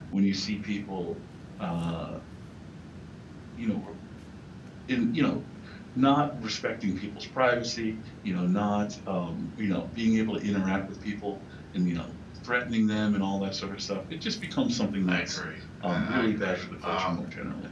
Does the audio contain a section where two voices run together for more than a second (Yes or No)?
Yes